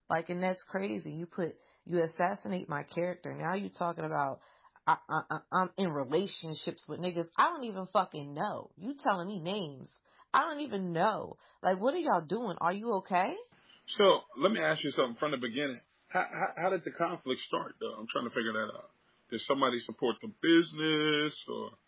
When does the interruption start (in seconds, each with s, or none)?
none